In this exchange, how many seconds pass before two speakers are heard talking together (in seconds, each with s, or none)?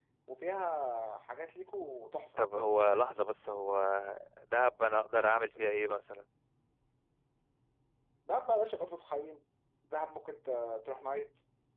none